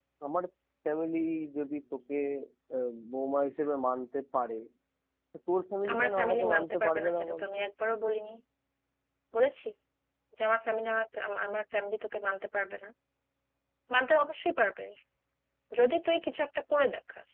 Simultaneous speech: Yes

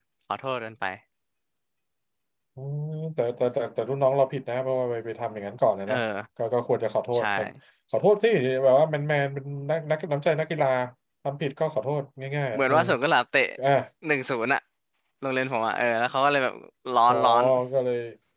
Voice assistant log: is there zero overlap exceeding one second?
Yes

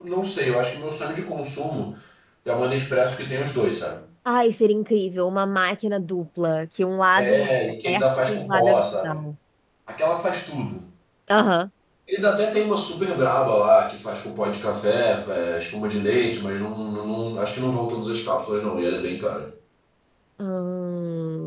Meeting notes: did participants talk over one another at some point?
Yes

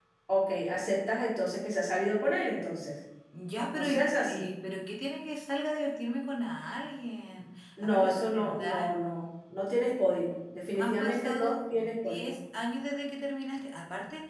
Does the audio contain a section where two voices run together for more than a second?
Yes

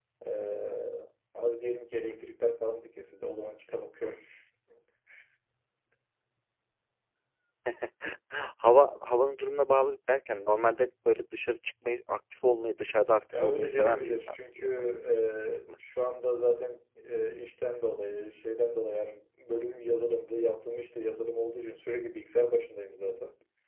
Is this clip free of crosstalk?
No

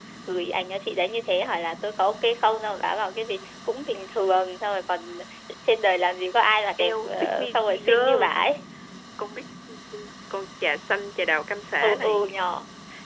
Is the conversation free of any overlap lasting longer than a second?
No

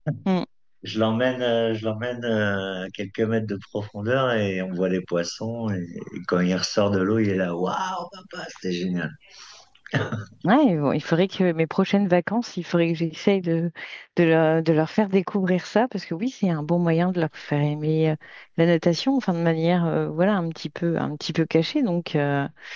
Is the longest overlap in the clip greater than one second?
No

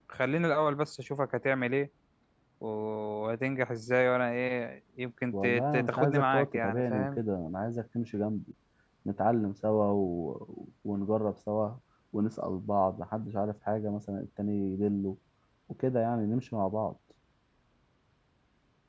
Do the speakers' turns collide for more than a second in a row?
Yes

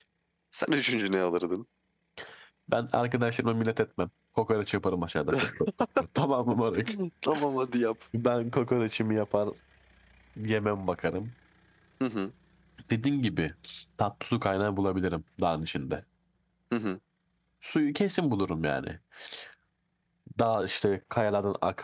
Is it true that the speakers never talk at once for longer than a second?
Yes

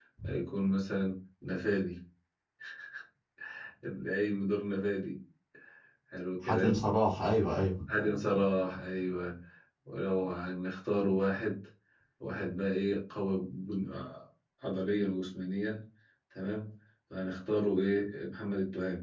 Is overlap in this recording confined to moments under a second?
Yes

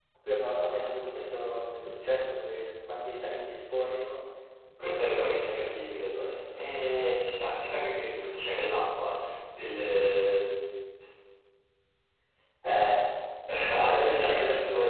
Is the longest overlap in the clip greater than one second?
Yes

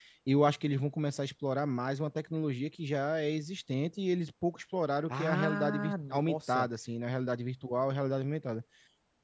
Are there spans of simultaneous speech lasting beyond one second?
Yes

